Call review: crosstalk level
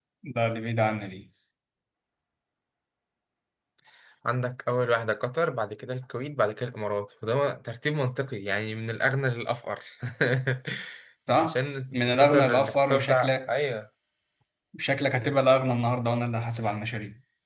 present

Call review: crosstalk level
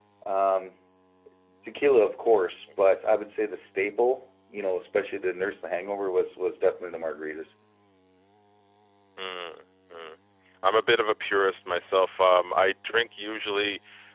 none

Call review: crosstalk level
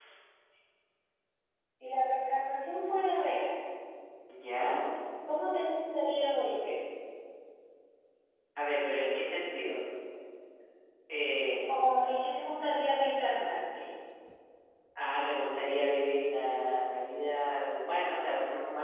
none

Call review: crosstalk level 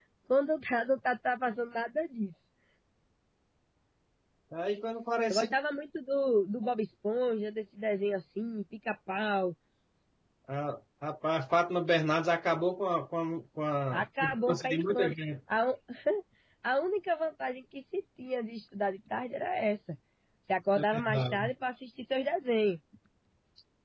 present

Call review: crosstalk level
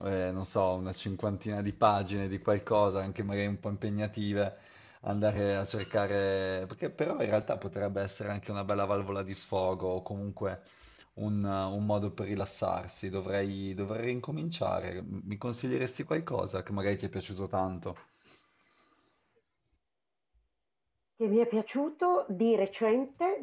none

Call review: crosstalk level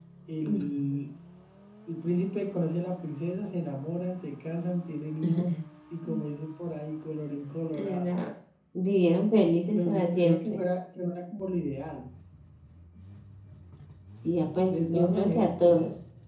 present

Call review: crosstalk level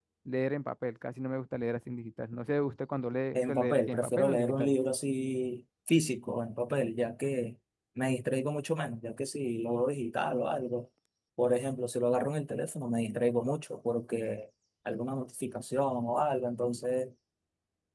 present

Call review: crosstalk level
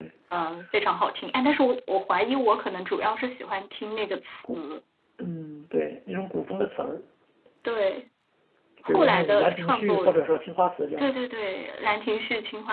present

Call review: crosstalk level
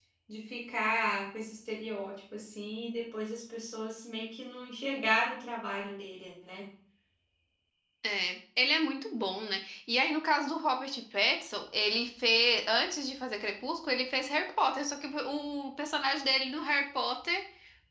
none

